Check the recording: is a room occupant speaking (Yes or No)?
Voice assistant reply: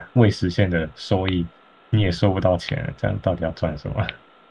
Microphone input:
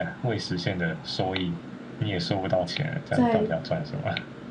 Yes